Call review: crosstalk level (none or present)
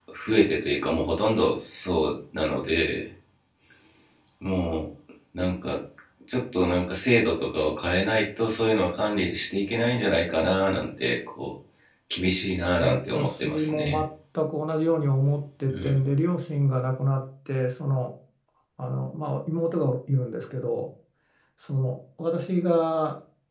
present